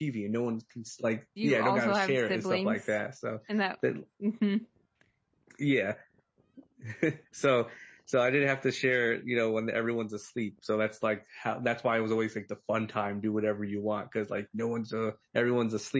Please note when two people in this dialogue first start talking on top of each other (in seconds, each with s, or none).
1.4 s